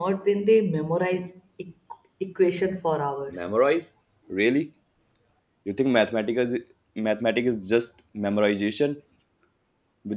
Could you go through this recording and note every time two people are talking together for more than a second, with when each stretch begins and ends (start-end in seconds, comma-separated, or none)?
none